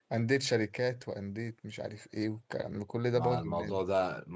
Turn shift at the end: Yes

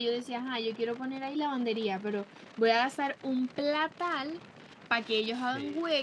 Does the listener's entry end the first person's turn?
No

